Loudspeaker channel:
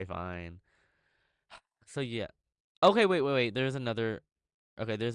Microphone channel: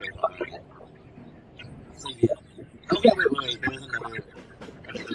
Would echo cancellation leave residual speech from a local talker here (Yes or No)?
No